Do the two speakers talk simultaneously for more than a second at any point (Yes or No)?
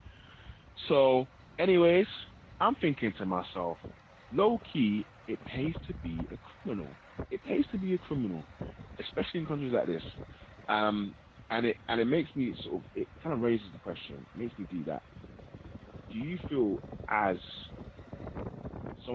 No